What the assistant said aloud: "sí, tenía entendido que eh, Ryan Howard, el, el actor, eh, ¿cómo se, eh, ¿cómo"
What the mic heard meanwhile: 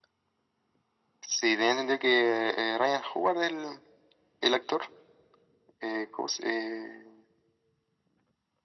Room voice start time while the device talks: none

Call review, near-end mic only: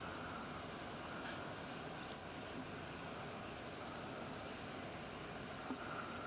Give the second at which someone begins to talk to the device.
none

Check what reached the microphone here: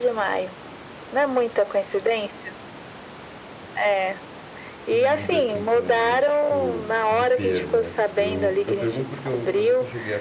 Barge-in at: 4.9 s

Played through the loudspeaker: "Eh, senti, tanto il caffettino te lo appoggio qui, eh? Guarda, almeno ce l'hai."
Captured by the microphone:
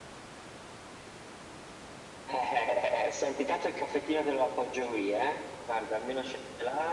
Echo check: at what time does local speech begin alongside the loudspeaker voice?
none

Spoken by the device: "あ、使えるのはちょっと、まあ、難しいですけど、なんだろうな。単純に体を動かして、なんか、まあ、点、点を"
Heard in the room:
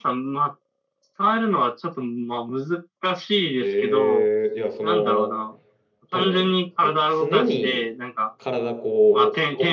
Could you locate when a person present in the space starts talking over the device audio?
3.6 s

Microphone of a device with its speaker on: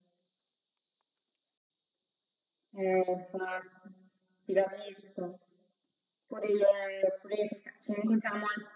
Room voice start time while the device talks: none

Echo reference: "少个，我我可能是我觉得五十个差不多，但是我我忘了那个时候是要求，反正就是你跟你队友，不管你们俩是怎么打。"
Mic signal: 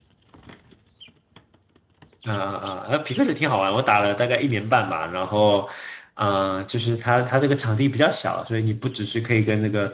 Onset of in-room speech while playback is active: 2.2 s

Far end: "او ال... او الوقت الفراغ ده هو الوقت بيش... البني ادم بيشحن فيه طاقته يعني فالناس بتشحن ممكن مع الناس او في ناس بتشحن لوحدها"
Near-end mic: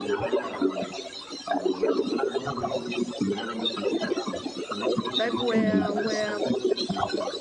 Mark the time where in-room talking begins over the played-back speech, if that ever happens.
5.2 s

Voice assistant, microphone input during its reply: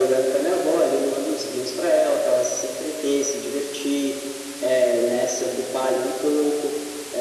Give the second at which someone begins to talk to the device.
none

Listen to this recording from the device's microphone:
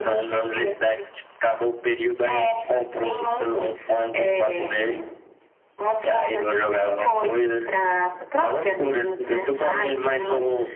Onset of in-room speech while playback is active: none

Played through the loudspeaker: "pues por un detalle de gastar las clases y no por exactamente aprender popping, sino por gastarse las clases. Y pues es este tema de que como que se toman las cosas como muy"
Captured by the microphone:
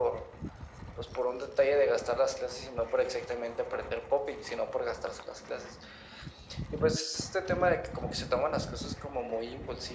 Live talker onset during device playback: none

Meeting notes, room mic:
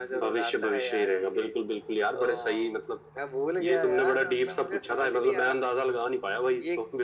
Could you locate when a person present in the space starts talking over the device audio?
none

